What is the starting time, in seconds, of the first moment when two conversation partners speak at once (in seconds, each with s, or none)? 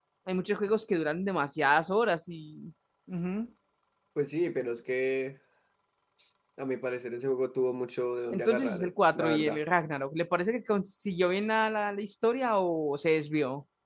8.3 s